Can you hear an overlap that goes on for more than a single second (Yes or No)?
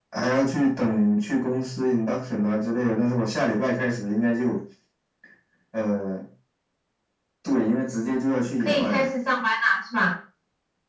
No